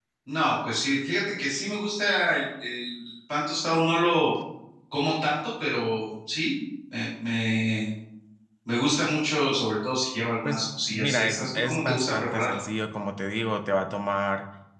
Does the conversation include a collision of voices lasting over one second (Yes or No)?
Yes